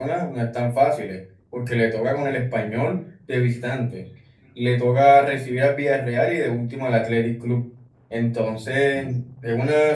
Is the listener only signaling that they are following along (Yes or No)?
Yes